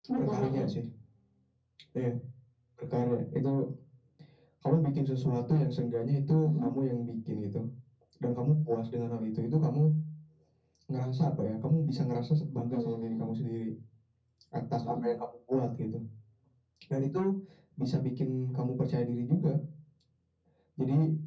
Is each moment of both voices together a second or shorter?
Yes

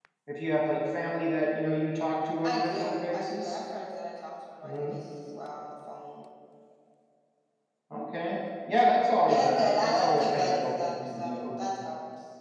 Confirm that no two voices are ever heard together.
No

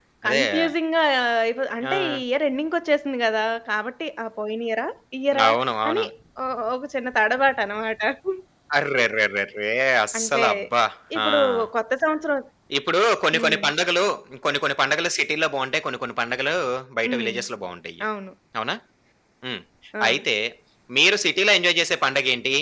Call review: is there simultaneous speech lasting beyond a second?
No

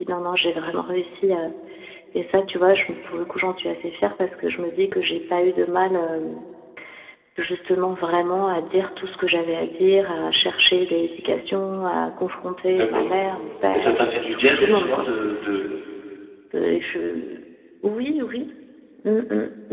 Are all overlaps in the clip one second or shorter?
No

